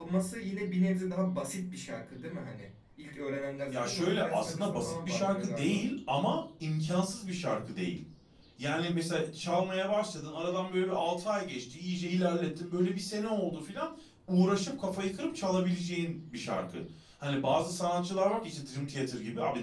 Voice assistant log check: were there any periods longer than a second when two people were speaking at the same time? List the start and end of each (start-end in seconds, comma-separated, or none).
3.7-5.8